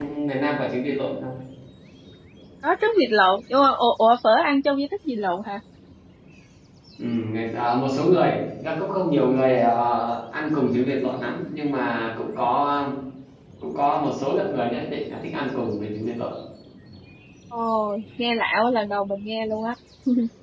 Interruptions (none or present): none